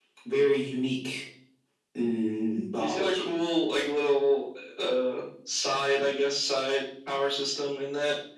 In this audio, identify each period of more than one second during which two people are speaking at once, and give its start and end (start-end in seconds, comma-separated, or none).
none